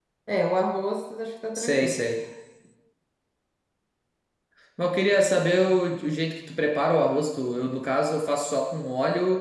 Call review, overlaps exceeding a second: none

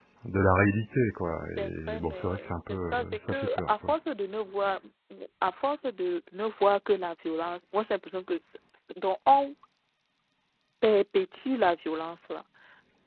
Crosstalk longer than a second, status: present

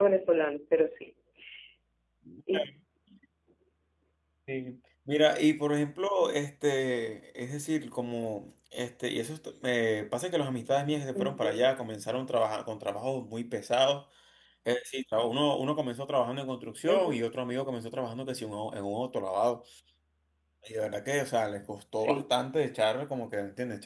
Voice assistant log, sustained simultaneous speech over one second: none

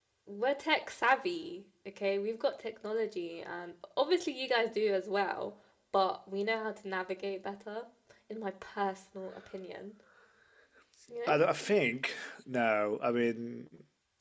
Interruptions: none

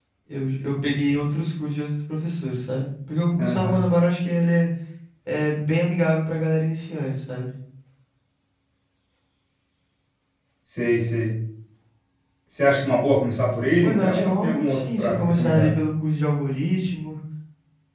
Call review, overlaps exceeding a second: present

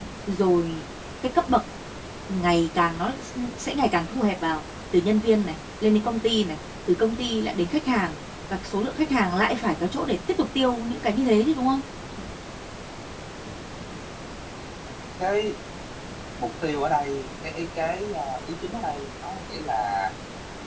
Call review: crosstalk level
none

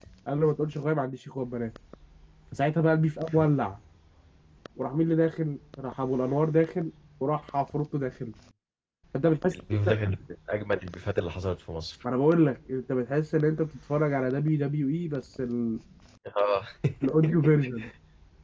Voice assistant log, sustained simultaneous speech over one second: none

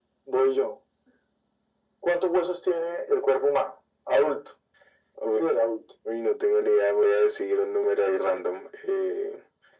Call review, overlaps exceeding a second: none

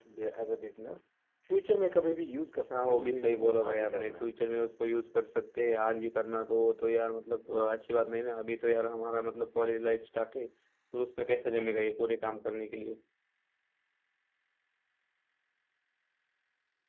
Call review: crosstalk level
present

